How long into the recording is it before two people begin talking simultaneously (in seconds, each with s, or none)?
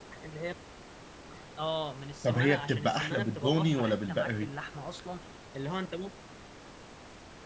2.2 s